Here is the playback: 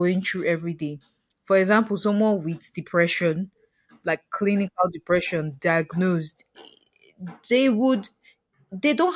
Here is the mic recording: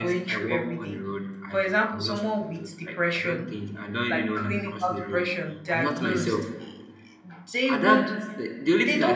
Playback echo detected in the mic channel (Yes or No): Yes